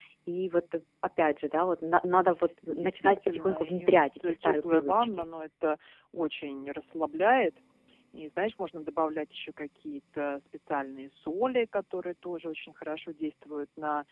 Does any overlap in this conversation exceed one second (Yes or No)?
Yes